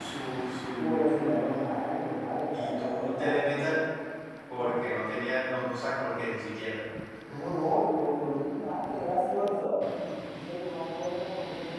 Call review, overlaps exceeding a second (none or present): present